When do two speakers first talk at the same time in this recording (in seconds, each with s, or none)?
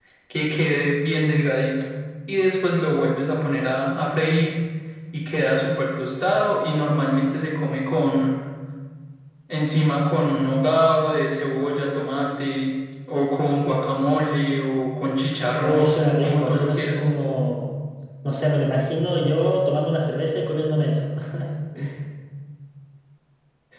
15.6 s